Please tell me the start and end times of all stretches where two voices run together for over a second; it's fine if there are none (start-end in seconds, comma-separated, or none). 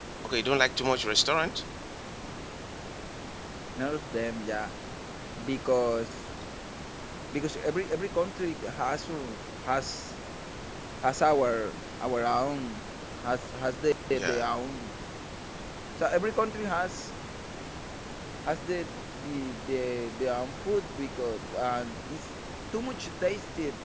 none